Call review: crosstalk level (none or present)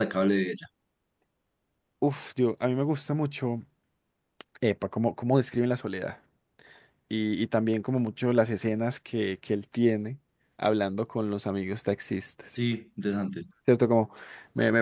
none